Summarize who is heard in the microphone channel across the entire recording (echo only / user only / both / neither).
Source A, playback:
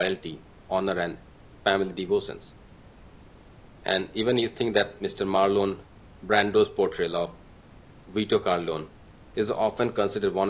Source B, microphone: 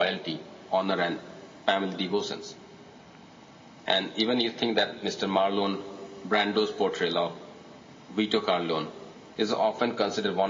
echo only